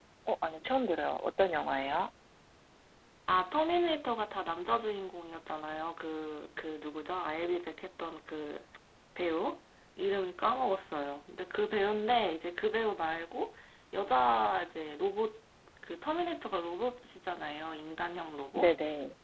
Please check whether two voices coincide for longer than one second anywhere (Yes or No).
No